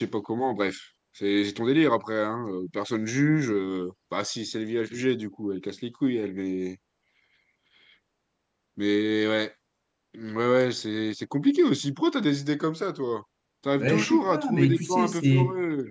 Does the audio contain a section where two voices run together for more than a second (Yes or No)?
Yes